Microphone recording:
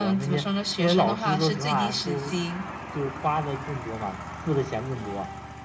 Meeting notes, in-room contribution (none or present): none